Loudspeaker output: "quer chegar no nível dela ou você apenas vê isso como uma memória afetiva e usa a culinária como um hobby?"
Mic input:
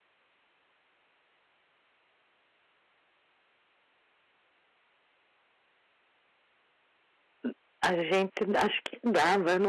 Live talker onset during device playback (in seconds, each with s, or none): 7.4 s